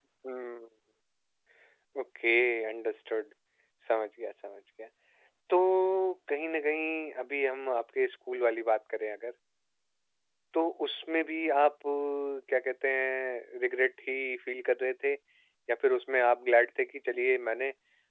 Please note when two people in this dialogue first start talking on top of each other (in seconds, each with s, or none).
none